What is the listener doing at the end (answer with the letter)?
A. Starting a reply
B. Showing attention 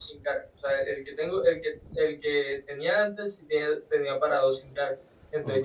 B